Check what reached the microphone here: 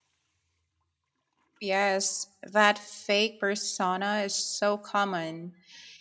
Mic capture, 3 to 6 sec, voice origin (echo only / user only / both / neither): user only